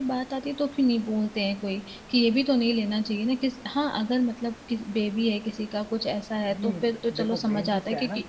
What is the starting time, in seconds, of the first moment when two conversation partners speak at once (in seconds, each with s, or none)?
6.5 s